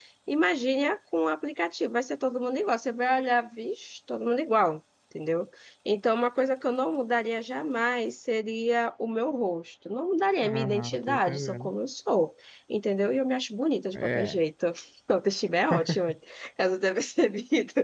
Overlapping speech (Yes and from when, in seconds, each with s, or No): Yes, from 10.4 s